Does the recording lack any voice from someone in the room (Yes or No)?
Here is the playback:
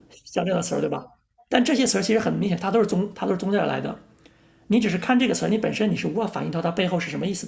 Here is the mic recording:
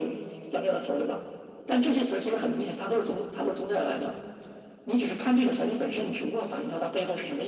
Yes